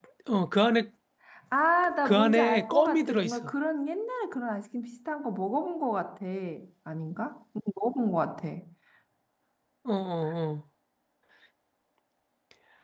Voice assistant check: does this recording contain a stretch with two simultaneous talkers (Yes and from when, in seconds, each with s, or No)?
Yes, from 2.0 s